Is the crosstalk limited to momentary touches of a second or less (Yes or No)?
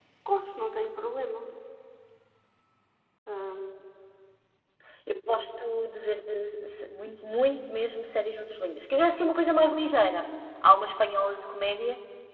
Yes